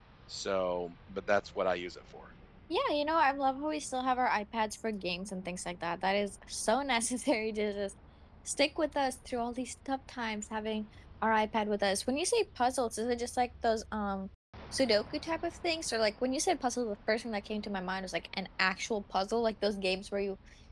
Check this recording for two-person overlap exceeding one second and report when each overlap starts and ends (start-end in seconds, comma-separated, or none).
none